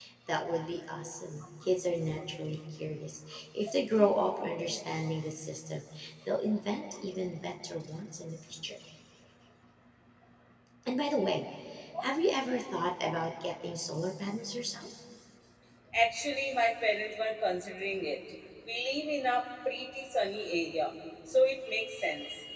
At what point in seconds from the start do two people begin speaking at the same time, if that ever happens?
none

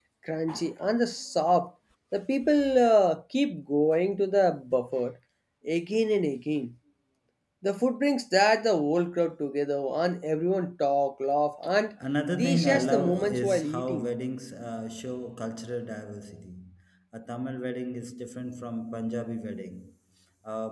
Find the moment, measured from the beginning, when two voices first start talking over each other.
12.4 s

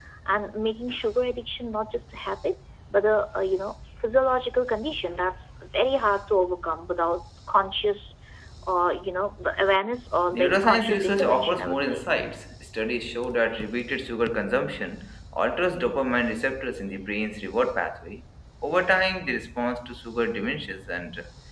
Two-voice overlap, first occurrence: 10.3 s

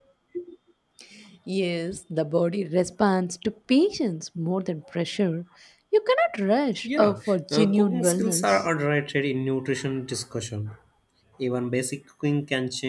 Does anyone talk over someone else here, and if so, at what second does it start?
6.8 s

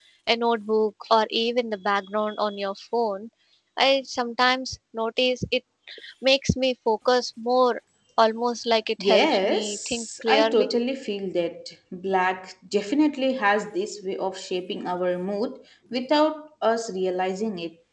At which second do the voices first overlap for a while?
9.0 s

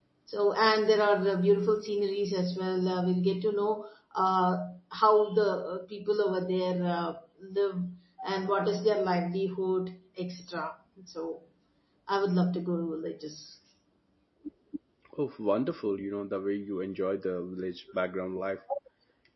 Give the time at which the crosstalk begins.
none

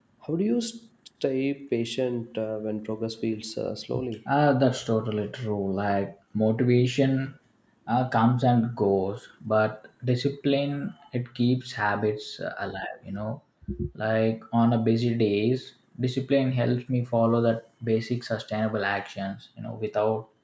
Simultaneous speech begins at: none

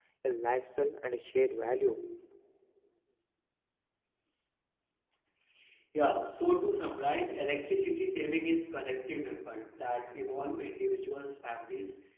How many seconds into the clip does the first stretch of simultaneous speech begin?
none

